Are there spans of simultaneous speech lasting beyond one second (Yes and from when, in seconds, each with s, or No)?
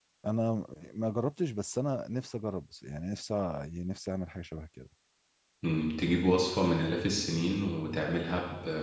No